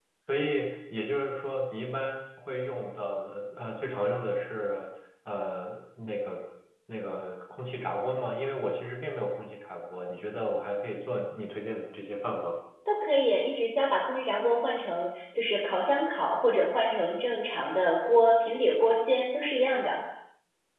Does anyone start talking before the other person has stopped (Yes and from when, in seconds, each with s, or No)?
No